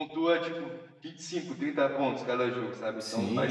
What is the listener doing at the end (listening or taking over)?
taking over